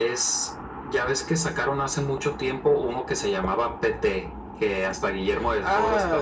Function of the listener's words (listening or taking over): taking over